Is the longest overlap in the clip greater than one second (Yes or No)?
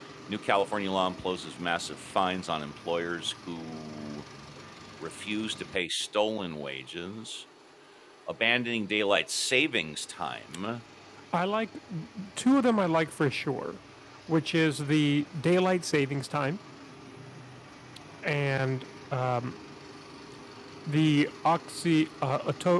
No